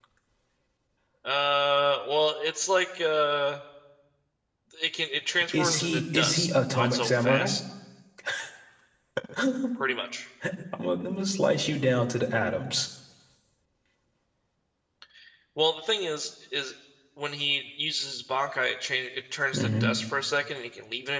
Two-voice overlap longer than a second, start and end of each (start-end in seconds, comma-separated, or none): 5.5-7.5